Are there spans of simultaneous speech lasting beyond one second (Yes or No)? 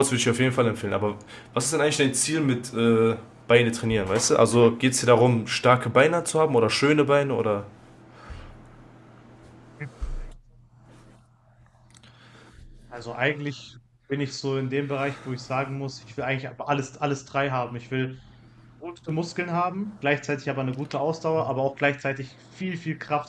No